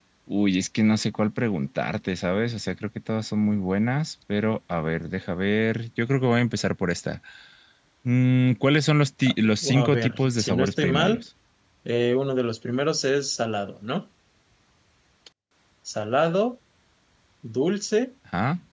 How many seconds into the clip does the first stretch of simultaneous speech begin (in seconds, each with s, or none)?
9.8 s